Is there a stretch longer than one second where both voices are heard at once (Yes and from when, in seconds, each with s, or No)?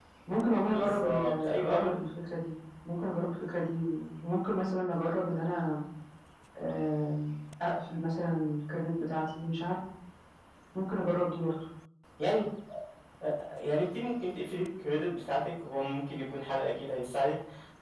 Yes, from 0.7 s